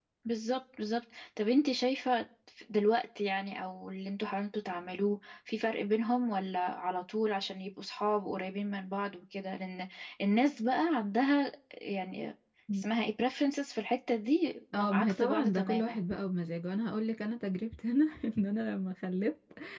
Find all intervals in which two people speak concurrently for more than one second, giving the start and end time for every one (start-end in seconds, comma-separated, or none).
14.7-16.1